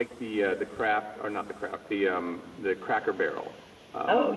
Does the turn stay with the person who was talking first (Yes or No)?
No